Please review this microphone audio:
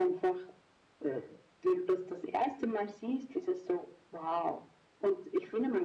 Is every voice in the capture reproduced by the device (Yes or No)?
Yes